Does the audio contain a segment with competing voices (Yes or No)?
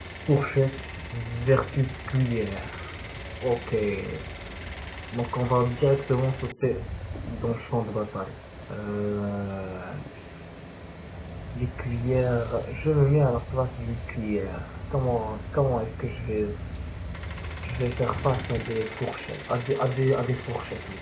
No